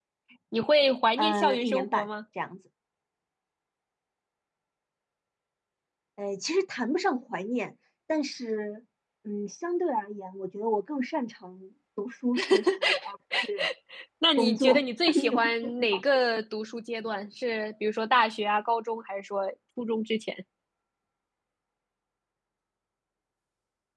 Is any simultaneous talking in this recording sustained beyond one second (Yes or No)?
Yes